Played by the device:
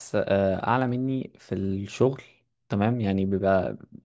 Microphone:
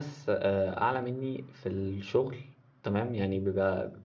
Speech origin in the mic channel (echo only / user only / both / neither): echo only